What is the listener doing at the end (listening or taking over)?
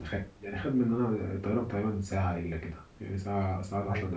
taking over